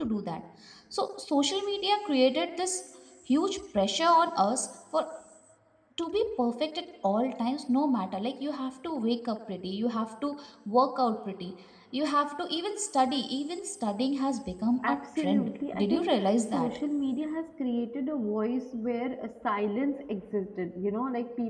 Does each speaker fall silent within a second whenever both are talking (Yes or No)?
No